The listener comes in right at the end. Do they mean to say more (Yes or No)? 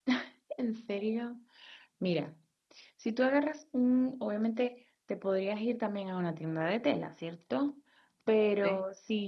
No